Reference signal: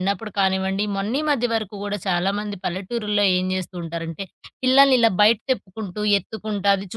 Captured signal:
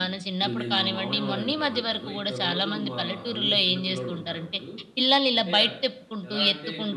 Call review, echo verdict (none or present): present